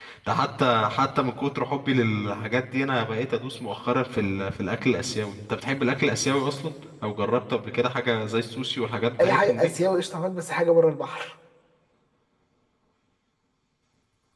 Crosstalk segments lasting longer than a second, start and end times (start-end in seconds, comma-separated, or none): none